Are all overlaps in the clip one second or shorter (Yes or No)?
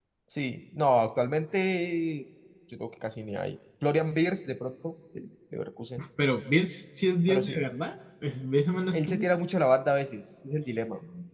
Yes